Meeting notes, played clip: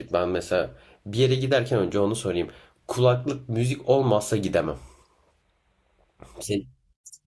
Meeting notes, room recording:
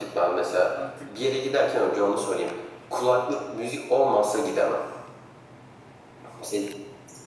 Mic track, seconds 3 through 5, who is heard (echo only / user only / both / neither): echo only